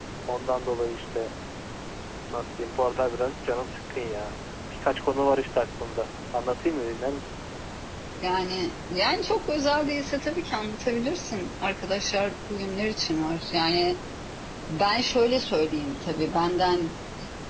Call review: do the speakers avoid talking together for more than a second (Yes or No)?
Yes